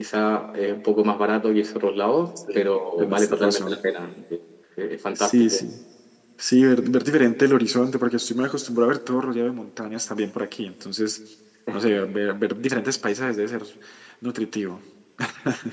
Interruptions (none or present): present